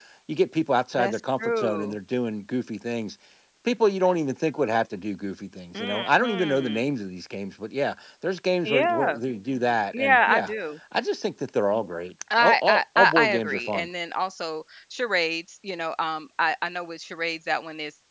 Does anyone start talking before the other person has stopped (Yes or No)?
Yes